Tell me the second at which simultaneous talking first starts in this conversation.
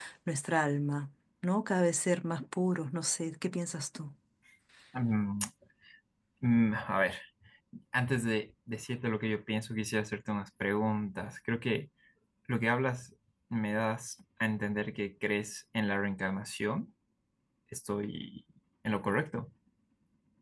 none

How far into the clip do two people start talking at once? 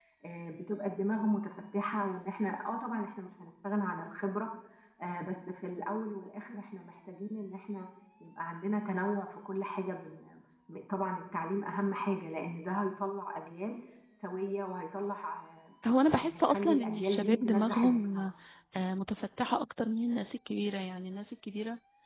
16 s

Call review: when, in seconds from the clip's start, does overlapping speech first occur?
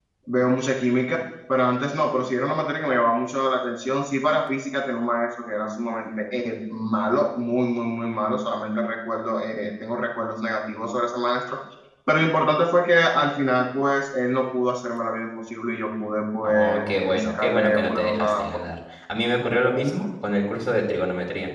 16 s

